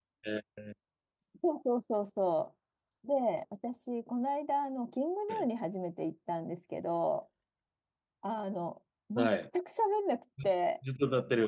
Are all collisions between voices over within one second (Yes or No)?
Yes